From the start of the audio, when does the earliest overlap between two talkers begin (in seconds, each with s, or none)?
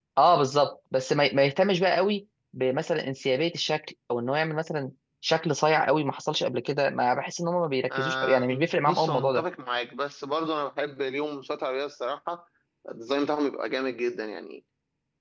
7.9 s